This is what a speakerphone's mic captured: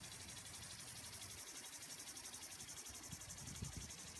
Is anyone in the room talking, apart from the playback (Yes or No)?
No